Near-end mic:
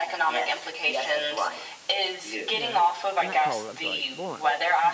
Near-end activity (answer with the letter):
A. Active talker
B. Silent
A